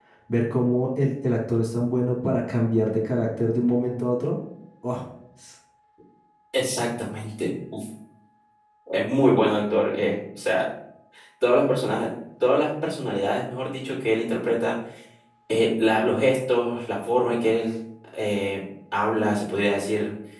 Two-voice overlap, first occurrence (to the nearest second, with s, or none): none